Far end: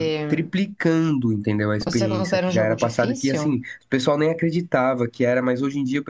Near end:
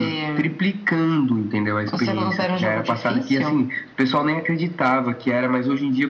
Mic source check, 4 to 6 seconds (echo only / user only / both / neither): echo only